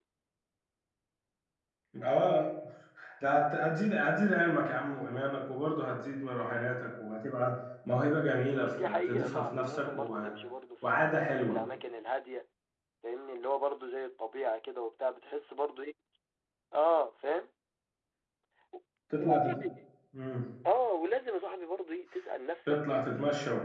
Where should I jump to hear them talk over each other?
8.6 s

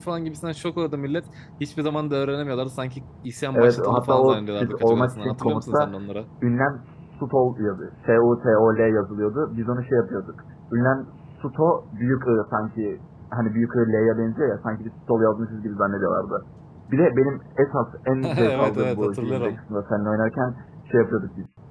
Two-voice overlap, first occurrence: 3.5 s

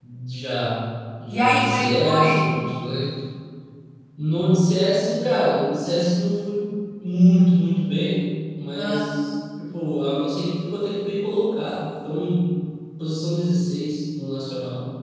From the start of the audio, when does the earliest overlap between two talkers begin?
1.3 s

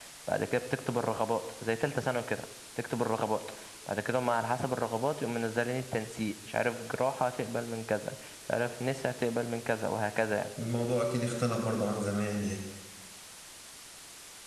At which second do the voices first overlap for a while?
none

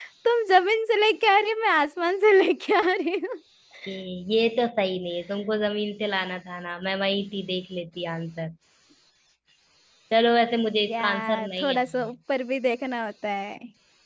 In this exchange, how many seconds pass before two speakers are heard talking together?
10.9 s

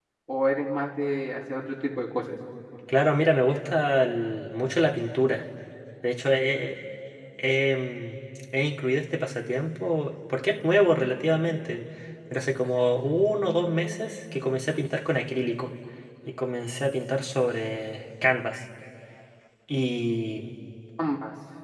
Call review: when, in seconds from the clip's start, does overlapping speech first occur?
none

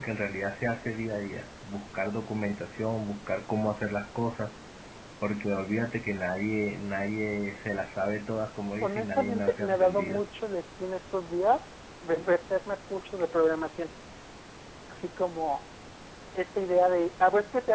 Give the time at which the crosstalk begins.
8.8 s

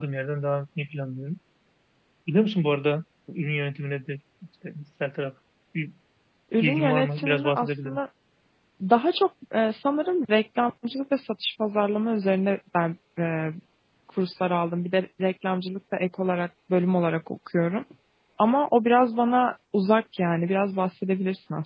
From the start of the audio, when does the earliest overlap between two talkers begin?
6.6 s

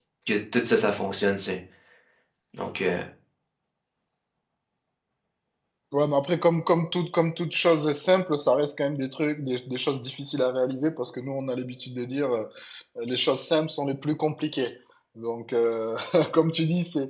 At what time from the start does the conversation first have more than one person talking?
none

